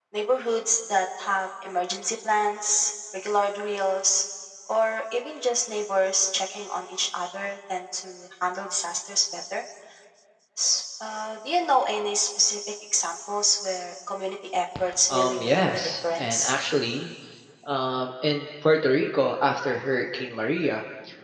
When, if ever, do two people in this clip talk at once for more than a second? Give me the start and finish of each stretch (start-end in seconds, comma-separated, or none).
15.1-16.5